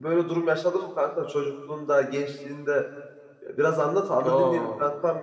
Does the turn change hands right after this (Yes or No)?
Yes